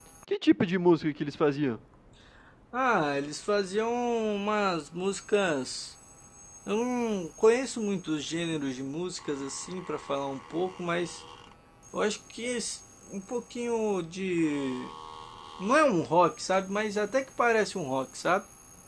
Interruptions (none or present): none